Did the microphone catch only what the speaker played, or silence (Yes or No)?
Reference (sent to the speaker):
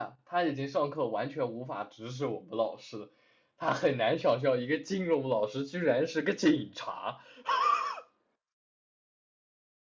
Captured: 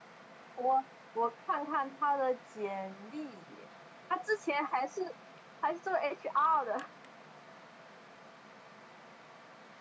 No